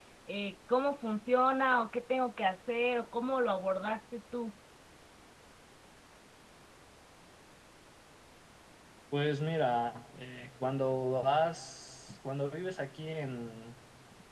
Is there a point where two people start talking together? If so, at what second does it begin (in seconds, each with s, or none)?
none